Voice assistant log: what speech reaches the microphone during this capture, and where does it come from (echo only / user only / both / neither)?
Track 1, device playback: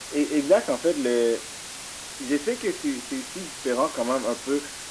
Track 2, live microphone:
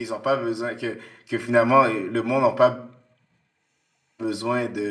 user only